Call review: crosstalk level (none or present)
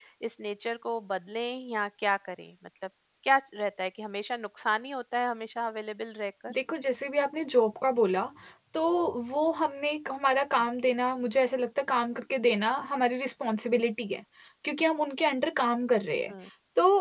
none